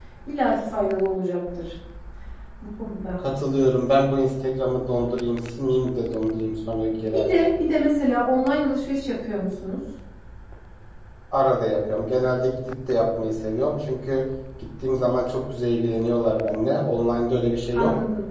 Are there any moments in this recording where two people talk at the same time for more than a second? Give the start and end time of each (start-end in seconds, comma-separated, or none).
none